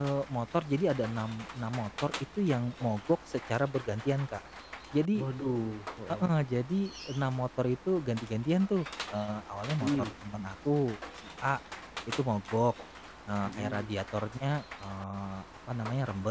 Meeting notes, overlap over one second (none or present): none